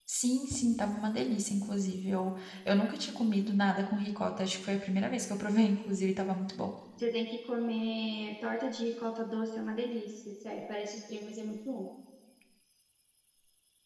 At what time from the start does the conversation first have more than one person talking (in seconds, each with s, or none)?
none